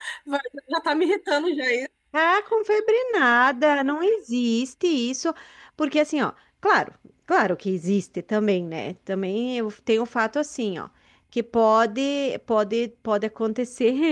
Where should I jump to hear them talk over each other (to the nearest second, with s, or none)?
none